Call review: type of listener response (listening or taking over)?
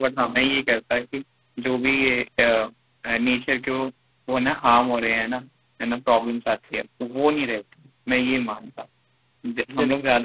listening